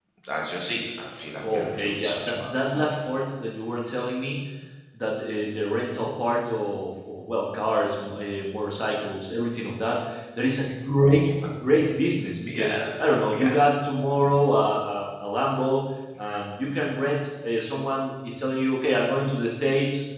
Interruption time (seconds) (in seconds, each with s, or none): 1.4 s